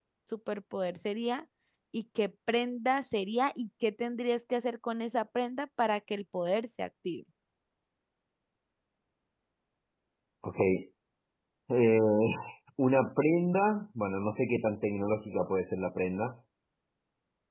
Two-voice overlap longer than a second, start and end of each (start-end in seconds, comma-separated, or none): none